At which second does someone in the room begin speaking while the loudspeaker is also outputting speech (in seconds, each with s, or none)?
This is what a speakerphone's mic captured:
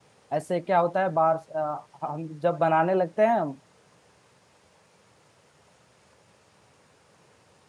0.4 s